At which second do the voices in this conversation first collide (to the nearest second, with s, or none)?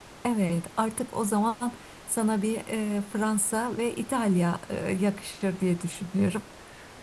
none